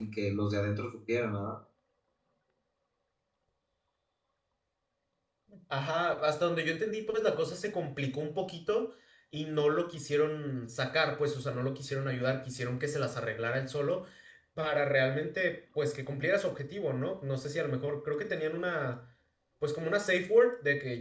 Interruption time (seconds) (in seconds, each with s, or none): none